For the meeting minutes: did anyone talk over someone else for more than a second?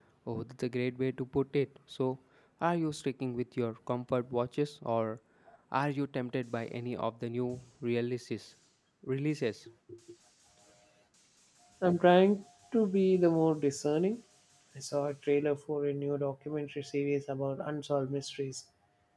No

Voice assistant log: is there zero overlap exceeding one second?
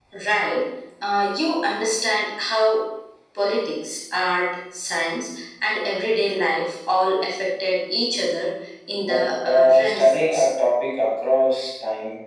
No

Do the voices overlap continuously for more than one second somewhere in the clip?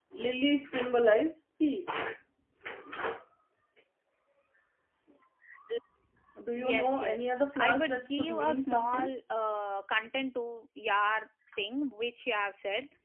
Yes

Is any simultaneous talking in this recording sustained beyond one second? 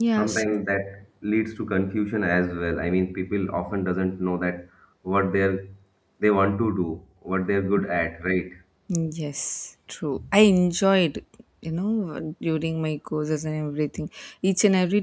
No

